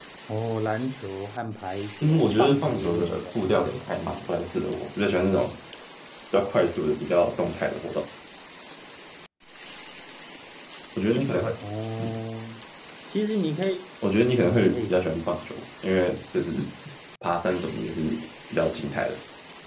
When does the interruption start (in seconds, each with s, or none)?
2.0 s